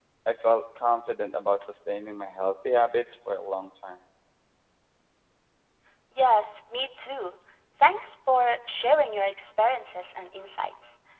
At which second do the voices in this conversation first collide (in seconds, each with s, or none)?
none